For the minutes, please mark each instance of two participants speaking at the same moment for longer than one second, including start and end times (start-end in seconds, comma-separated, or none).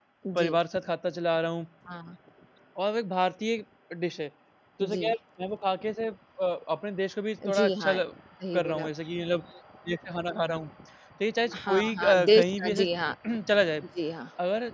11.5-12.8